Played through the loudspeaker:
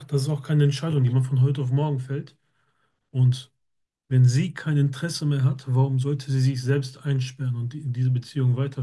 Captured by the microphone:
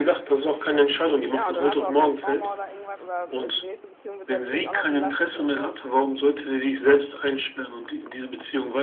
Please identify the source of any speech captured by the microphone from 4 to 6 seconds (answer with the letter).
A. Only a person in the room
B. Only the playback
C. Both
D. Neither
C